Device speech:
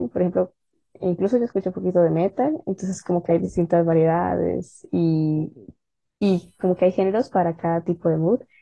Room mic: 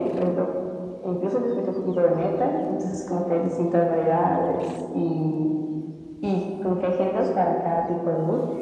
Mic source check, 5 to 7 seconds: echo only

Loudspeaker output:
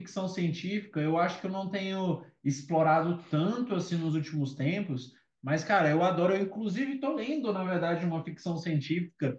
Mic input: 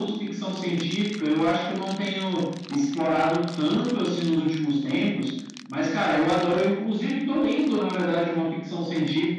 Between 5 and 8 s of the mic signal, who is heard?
echo only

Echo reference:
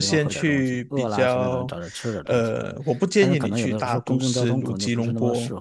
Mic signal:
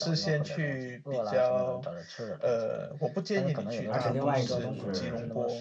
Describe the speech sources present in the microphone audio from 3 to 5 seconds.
both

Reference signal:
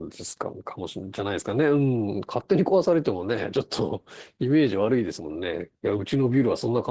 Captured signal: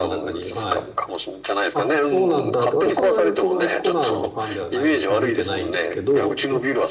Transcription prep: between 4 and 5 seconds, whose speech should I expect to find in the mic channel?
both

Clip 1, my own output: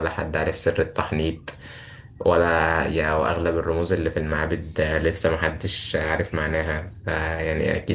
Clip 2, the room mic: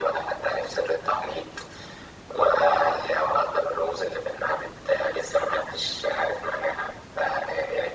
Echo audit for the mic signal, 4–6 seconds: echo only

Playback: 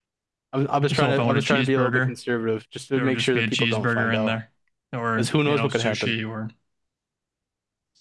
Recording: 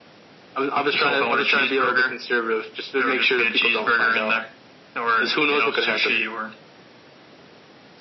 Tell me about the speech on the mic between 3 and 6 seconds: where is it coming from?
echo only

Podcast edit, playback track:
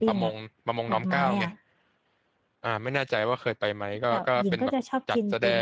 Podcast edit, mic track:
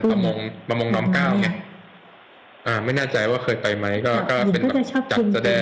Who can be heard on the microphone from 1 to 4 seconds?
echo only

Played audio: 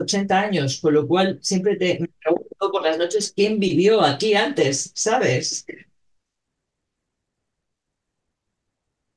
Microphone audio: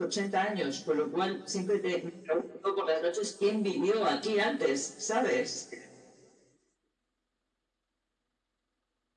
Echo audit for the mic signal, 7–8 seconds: neither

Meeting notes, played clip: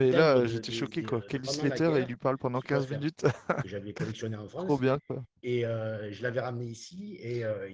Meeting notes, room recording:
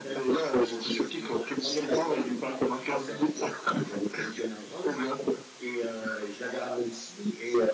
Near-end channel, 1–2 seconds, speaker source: echo only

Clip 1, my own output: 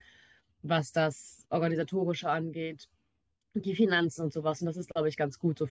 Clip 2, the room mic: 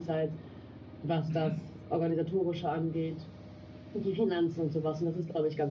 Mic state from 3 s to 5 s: echo only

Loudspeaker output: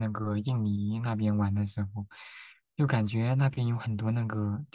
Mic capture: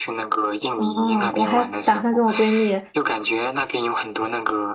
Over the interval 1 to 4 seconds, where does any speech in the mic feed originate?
both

